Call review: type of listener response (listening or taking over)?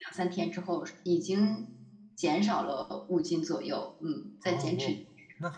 taking over